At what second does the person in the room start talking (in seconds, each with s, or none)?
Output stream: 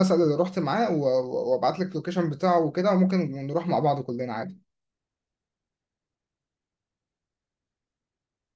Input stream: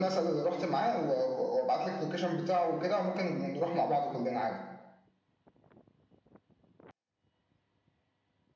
none